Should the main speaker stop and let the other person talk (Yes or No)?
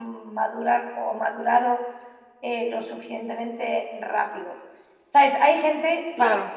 No